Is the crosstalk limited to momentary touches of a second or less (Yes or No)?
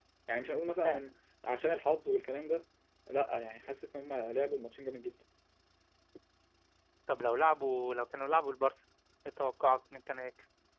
Yes